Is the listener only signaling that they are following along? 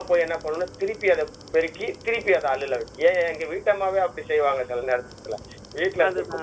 Yes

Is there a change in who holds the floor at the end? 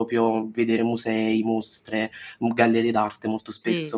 Yes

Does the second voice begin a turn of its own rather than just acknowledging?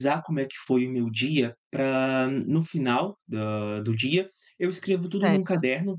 No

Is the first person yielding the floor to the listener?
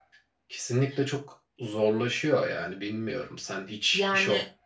No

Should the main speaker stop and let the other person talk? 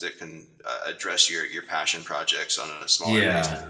Yes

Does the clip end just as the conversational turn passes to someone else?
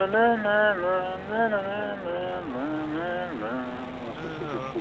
Yes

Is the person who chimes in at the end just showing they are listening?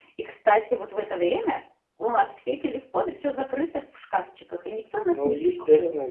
No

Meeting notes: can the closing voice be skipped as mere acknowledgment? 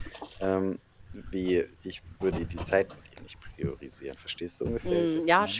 No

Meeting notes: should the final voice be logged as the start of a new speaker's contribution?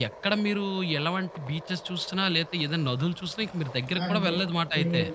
Yes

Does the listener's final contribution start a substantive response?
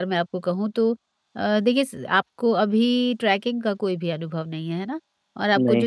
No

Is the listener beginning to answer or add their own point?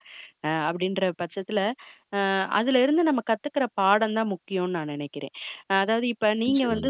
No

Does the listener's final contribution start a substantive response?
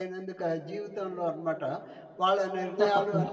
No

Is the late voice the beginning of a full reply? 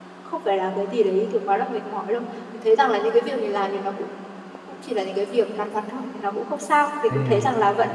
Yes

